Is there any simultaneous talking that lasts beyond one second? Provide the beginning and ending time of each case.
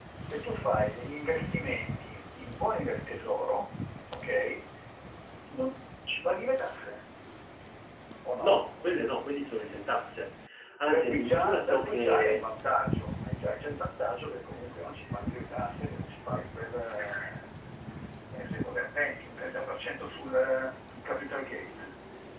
10.9-12.5

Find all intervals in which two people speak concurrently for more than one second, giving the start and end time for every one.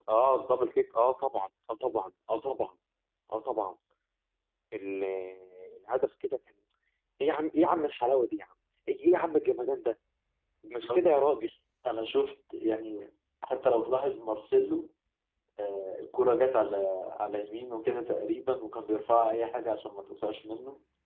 none

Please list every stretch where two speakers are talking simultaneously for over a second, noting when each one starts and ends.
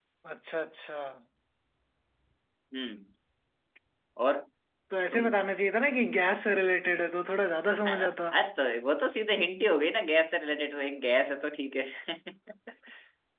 none

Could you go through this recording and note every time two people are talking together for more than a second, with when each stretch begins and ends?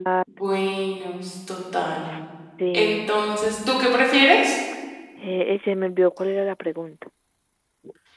none

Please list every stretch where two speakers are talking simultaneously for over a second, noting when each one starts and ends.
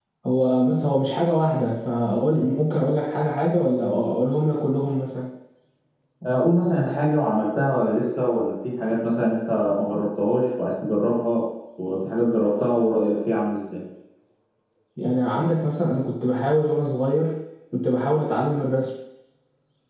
none

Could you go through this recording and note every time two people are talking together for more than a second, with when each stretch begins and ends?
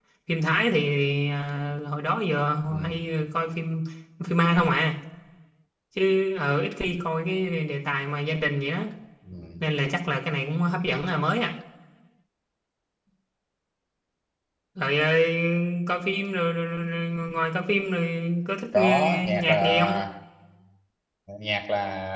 18.7-20.0

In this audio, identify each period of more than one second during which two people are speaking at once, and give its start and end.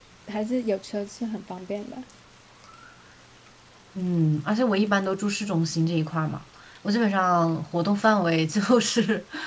none

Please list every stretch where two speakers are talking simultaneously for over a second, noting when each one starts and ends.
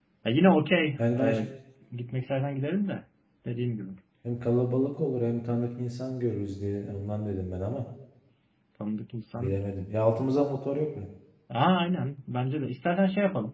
none

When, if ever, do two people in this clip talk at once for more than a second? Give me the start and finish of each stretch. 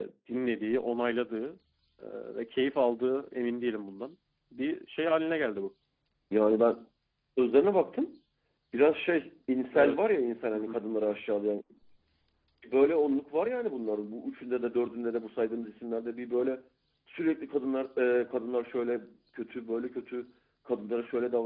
none

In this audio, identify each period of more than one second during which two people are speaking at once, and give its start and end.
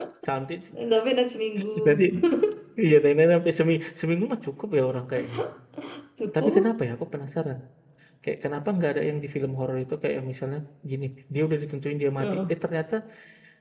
none

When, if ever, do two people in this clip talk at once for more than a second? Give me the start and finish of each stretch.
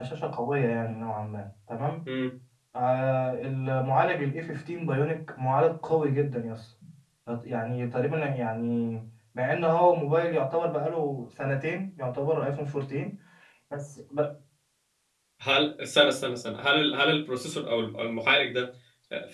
none

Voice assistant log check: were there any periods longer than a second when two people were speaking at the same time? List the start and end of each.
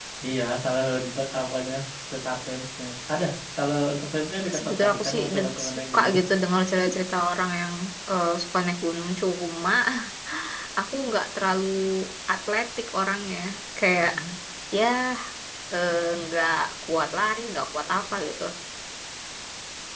4.6-6.2

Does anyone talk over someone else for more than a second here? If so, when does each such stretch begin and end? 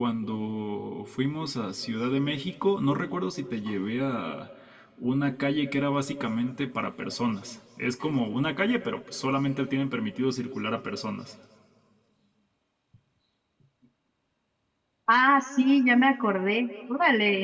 none

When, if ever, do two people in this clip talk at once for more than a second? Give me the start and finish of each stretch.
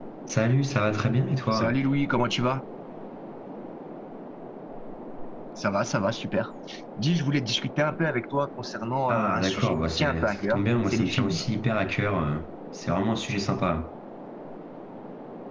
9.1-11.4

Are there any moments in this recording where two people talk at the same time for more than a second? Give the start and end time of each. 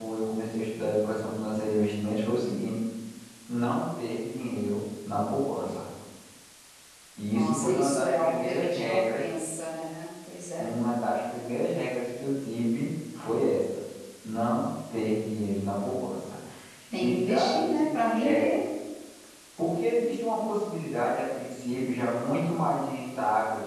7.3-9.2, 17.0-18.5

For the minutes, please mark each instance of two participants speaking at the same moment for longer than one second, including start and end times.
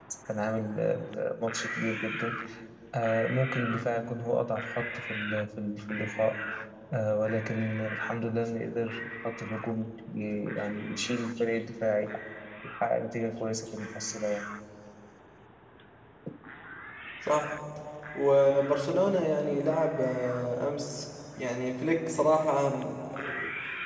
none

